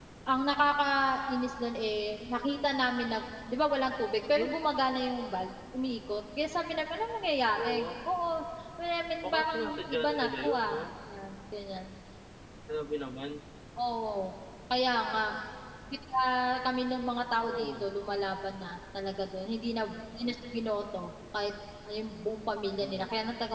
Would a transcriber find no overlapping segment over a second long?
No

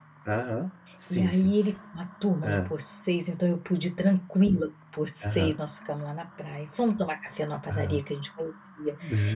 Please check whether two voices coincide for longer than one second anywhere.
No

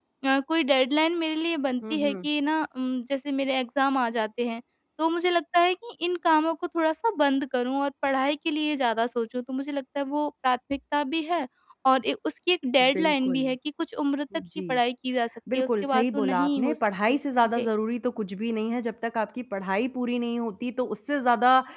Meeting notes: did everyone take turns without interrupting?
No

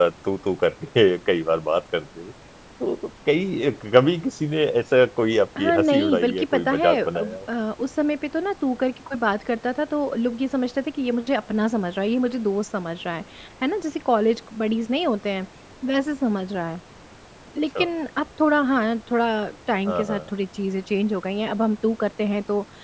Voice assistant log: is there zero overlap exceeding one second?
No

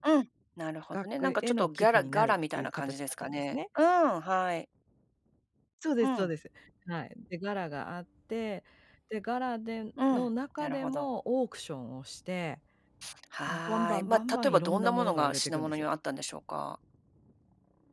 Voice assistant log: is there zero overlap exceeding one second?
No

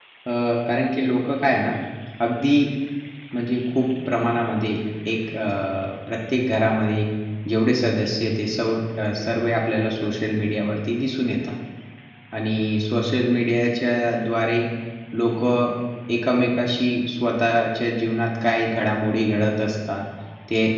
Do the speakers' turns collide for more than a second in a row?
No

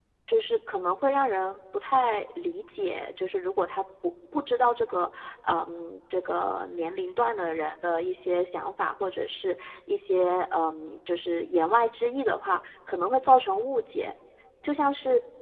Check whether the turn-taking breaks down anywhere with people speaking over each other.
No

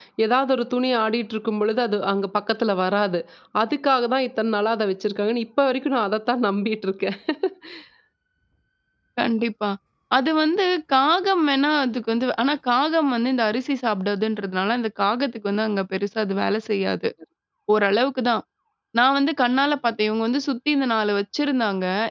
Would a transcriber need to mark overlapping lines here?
No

